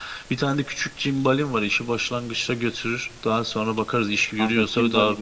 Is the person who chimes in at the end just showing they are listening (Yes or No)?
No